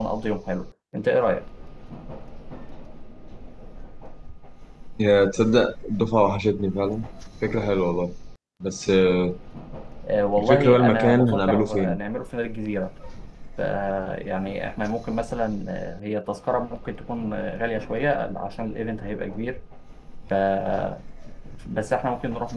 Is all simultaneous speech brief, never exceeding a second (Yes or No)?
No